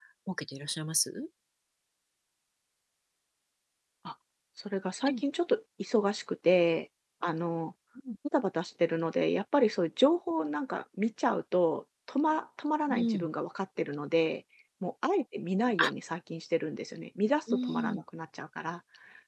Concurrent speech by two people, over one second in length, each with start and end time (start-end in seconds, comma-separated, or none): none